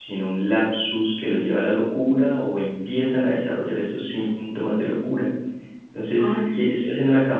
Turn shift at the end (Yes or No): No